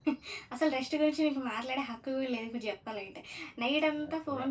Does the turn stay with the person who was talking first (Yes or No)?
Yes